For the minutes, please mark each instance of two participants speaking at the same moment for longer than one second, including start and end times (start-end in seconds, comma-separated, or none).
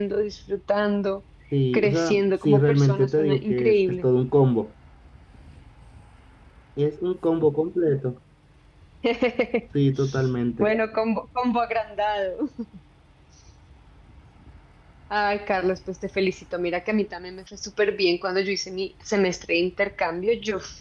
1.7-4.1